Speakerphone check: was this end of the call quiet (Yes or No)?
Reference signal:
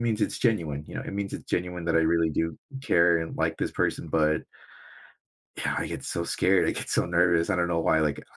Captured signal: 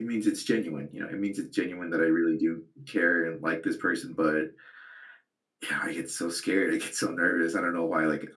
Yes